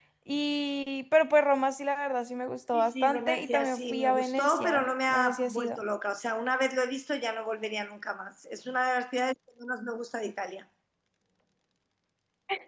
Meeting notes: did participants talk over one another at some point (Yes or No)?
Yes